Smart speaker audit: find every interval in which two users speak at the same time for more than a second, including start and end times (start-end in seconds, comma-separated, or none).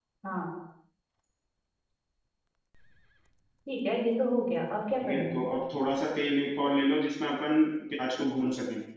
none